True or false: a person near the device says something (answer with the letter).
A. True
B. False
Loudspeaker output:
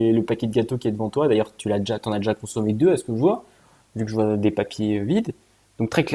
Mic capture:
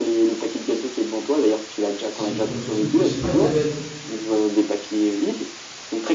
A